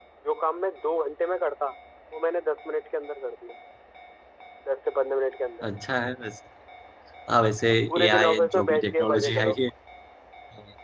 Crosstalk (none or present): present